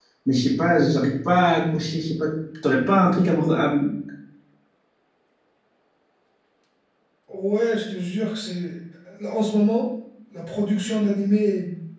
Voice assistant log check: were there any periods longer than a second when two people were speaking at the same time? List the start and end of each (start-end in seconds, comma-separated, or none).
none